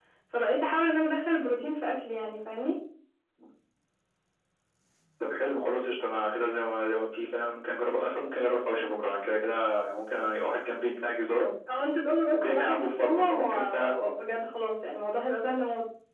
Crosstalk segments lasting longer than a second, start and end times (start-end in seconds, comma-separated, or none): 12.3-13.9